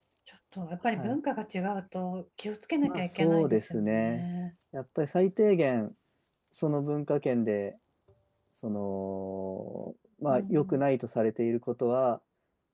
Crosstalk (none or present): present